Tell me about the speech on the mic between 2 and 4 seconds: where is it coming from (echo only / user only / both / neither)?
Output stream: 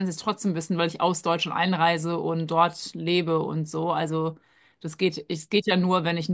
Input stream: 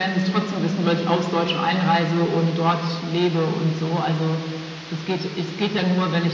echo only